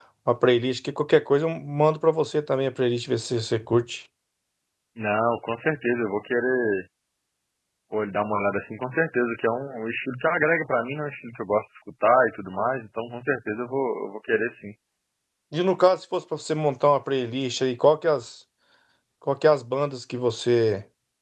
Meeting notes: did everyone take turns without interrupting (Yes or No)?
Yes